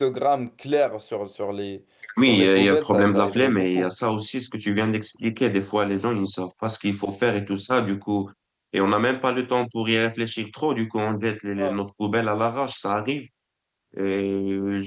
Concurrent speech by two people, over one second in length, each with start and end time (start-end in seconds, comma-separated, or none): 2.3-3.9